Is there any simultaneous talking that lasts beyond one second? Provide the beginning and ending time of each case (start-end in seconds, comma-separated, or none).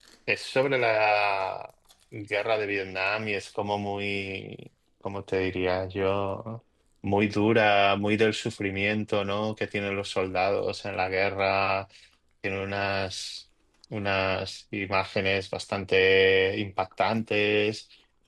none